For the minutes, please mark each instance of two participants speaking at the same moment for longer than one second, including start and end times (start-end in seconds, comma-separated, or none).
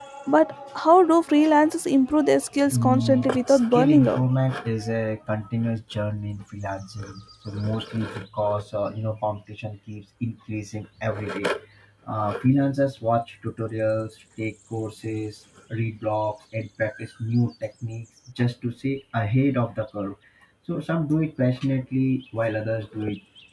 2.7-4.2